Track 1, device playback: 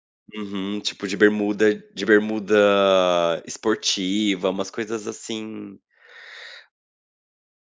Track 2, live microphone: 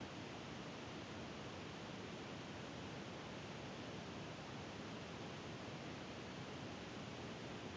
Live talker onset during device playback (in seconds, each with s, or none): none